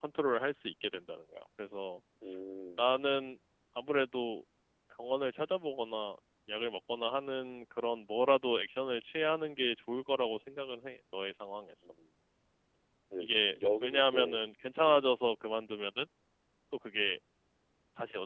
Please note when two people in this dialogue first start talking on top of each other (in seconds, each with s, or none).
13.2 s